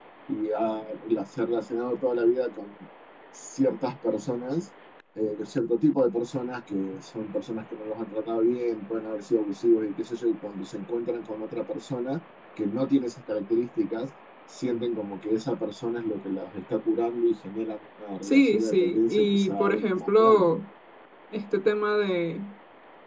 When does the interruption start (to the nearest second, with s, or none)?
18 s